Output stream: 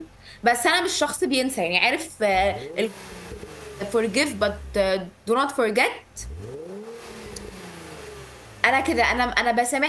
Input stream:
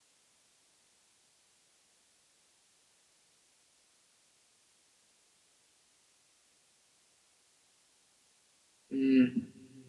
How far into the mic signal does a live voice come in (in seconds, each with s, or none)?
8.9 s